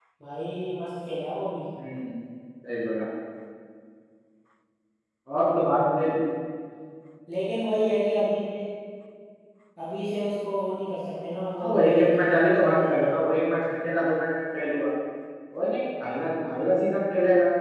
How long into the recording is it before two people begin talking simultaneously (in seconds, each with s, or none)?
11.5 s